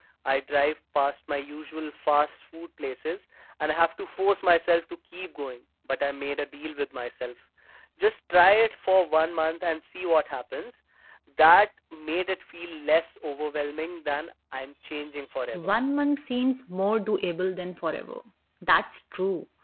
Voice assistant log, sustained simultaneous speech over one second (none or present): none